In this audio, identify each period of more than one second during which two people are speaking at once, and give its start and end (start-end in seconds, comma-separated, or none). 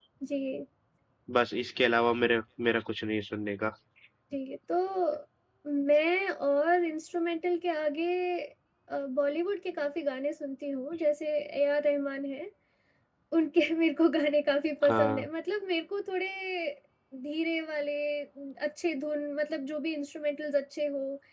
none